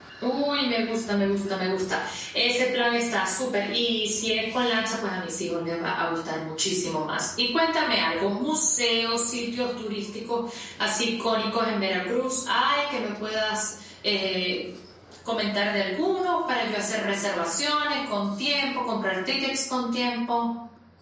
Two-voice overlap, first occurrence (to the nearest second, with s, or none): none